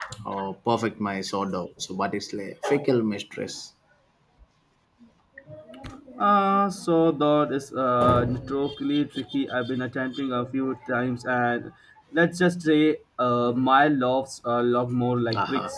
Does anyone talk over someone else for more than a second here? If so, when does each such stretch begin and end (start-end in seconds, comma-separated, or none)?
none